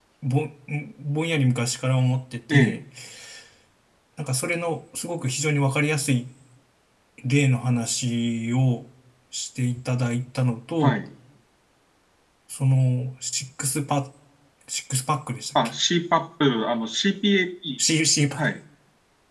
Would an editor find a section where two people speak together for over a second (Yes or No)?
No